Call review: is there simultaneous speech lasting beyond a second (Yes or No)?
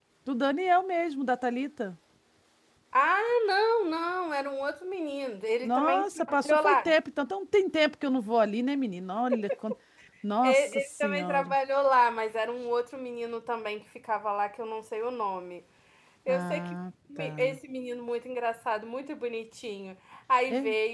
Yes